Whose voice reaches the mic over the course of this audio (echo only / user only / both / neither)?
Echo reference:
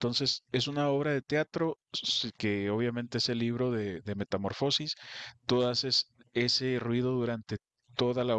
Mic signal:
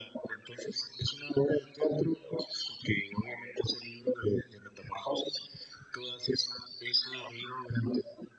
echo only